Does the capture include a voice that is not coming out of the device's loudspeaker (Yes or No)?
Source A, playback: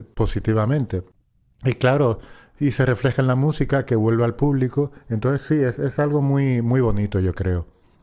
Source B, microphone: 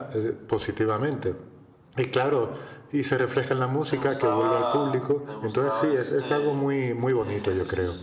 Yes